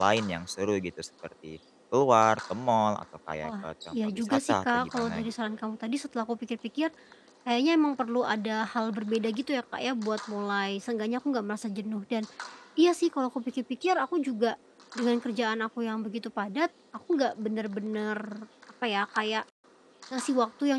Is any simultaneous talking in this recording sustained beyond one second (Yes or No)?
Yes